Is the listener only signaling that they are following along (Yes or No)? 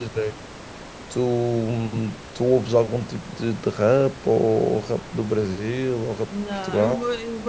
No